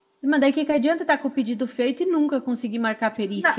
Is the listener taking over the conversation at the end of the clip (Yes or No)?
Yes